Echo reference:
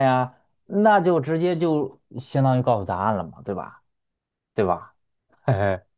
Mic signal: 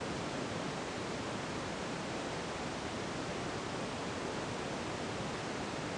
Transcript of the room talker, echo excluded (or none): none